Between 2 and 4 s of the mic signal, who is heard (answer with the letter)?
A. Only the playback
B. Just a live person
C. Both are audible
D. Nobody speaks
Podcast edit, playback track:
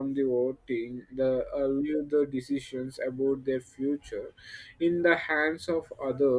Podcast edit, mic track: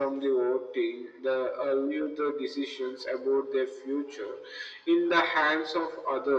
A